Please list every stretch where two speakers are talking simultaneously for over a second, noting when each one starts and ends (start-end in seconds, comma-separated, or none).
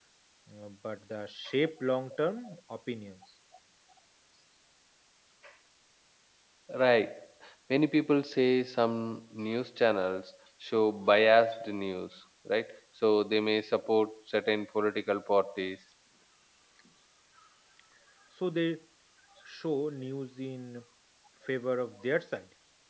none